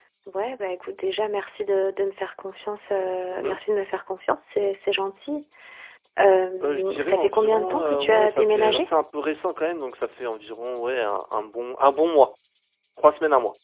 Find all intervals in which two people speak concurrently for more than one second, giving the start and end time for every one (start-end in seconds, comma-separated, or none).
6.6-8.9